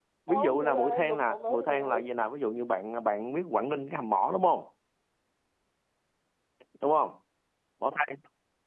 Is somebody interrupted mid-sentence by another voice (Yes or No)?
Yes